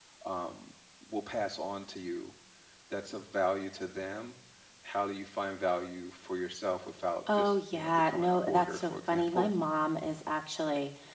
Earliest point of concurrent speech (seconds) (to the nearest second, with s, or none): 7 s